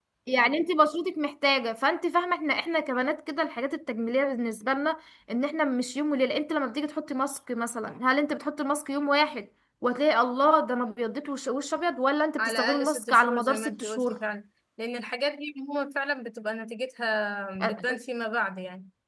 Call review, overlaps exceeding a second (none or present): present